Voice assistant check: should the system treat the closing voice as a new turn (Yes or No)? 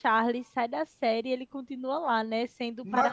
No